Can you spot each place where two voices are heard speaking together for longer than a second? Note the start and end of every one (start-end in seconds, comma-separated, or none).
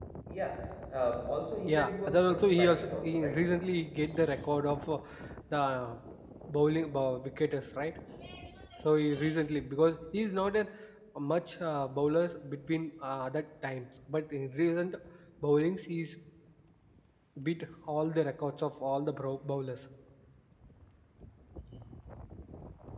1.7-3.4